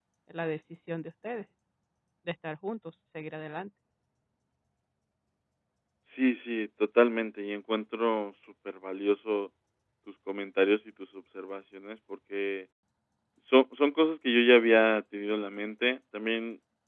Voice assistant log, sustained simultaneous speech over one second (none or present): none